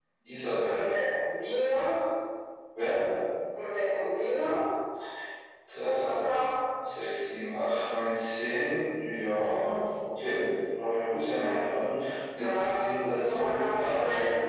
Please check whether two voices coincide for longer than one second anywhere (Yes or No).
Yes